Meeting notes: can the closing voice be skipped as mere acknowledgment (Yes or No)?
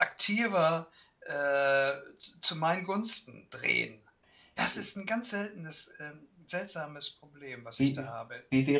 No